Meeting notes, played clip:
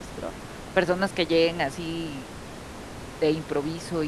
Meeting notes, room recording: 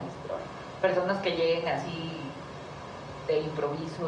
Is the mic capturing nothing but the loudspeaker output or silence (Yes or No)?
Yes